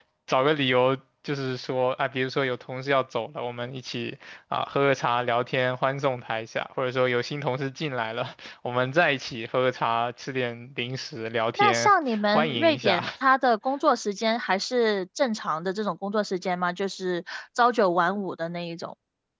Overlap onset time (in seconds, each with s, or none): 11.6 s